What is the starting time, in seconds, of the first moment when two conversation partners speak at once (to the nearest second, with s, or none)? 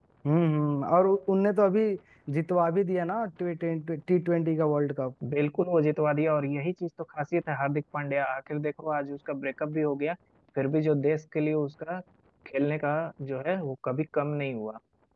none